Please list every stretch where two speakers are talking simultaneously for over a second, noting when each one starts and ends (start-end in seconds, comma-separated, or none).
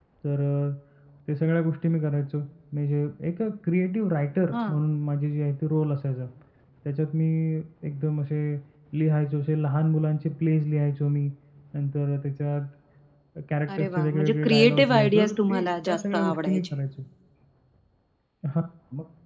13.8-16.6